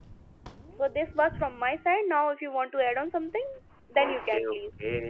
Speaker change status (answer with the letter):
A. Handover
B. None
A